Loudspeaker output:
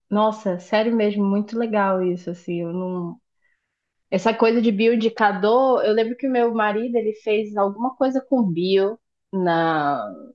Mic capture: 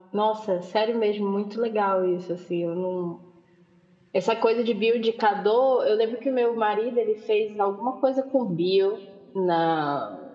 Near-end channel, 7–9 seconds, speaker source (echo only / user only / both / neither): echo only